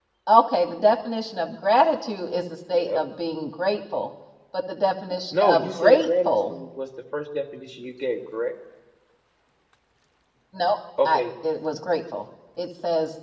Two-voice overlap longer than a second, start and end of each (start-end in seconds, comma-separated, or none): 5.3-6.6